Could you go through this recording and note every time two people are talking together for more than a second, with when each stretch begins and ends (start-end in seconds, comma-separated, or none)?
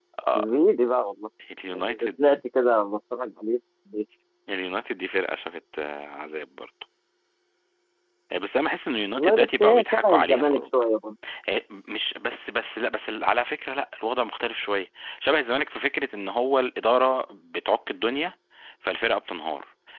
9.2-10.7